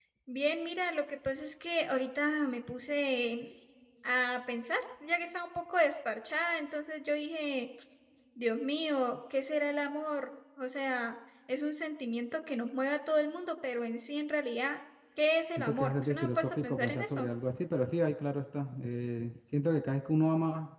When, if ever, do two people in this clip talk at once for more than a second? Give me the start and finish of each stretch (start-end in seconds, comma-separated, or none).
15.6-17.3